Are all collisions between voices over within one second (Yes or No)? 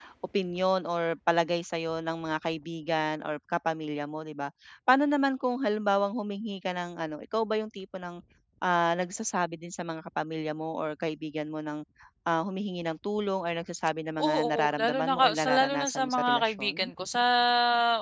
No